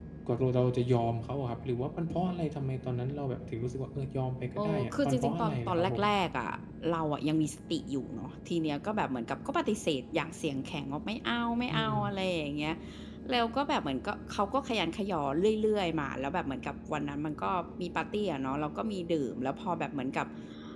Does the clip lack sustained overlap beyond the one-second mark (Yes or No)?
No